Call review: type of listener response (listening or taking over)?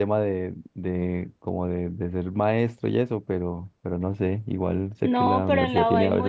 taking over